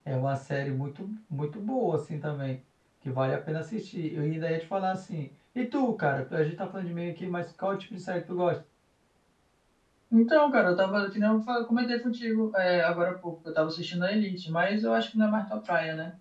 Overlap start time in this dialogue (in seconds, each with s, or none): none